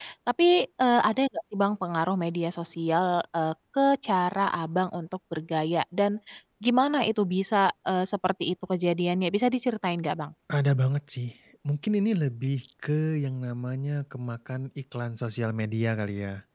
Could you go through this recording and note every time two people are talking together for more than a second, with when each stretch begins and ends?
none

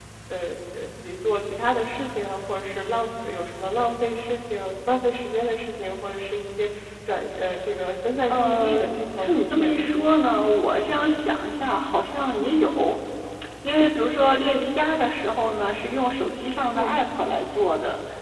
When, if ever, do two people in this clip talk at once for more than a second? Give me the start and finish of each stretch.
8.3-9.8

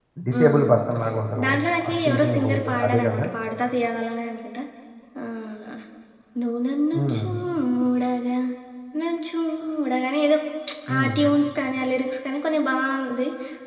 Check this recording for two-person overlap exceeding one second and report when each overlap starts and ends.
1.9-3.2

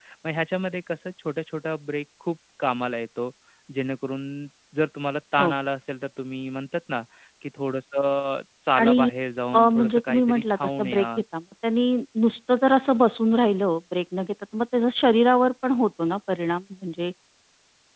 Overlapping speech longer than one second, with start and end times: 9.6-11.1

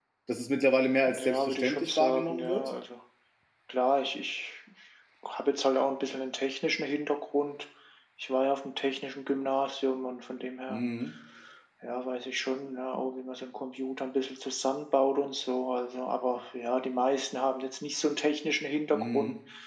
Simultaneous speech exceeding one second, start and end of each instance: 1.2-2.7

